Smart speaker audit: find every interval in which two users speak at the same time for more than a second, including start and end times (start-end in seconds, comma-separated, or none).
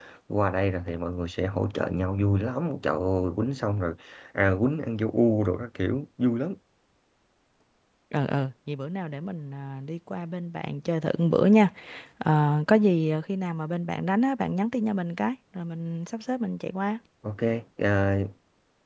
none